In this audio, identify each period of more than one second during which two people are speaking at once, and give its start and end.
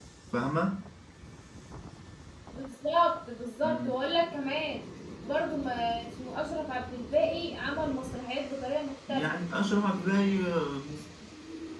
none

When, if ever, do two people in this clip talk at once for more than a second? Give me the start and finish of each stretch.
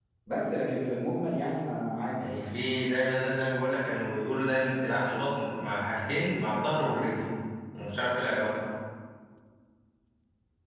none

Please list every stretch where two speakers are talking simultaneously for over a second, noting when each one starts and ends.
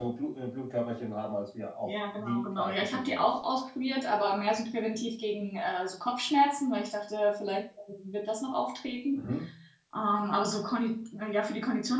1.9-3.3

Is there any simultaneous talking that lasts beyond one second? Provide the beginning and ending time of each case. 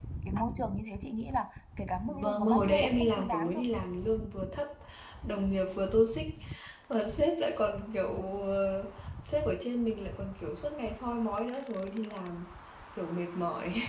2.1-3.6

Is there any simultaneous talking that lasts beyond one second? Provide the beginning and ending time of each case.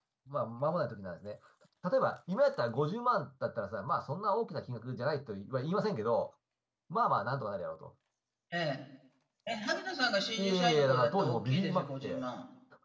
10.4-12.2

